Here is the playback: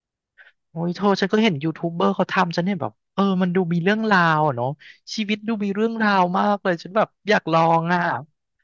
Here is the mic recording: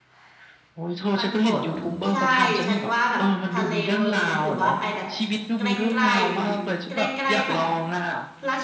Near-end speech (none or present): present